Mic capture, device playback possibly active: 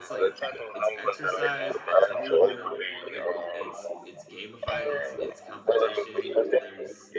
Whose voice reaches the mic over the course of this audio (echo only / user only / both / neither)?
both